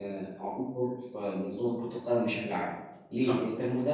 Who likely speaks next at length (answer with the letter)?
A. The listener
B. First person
B